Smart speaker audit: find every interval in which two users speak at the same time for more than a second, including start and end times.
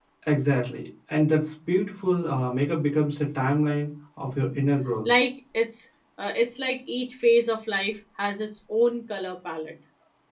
none

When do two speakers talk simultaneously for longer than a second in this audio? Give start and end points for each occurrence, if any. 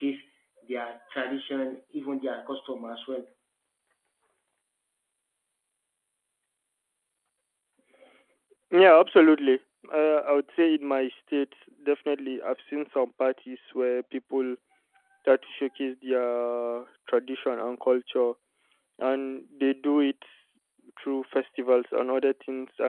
none

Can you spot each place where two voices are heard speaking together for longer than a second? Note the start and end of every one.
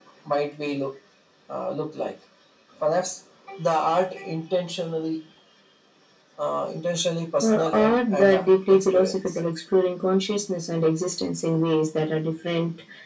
7.4-9.4

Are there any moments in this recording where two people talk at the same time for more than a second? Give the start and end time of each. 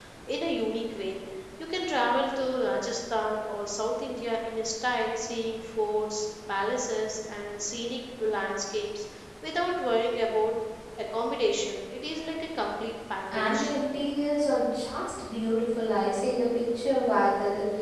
none

